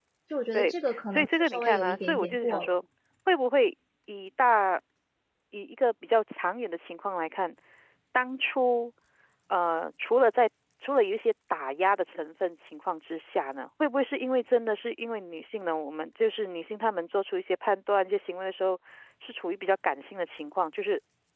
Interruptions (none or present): present